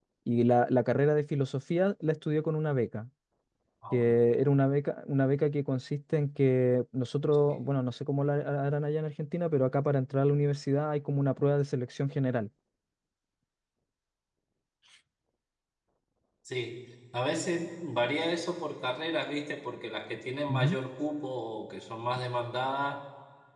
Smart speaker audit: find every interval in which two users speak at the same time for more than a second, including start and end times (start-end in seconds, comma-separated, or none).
none